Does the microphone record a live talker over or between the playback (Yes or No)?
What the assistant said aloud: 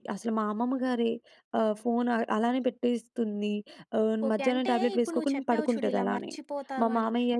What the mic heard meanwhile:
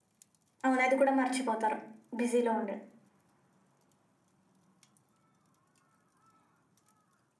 Yes